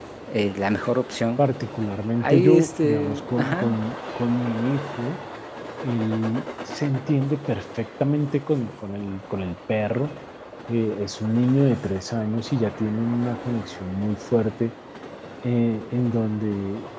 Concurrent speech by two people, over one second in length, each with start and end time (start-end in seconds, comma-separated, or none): 2.2-3.8